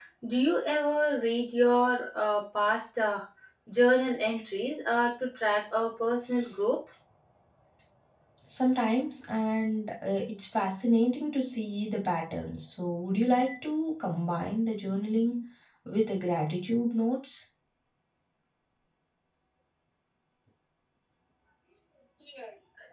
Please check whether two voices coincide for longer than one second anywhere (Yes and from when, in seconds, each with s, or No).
No